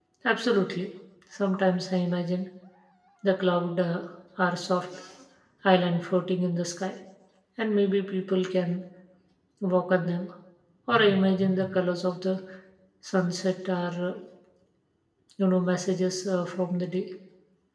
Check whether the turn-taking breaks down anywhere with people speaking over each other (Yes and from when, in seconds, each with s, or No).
No